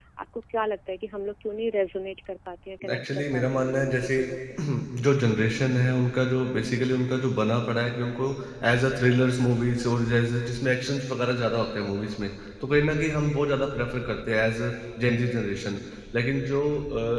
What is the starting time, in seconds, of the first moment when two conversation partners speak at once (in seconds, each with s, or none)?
2.9 s